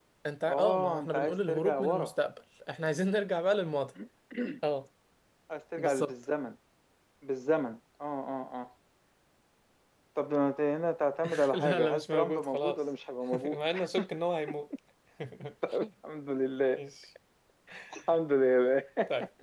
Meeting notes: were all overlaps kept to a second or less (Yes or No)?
No